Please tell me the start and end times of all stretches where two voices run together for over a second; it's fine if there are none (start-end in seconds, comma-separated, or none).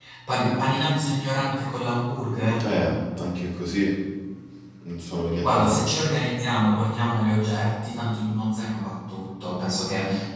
none